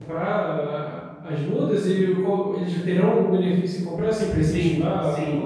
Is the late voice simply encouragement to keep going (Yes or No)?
No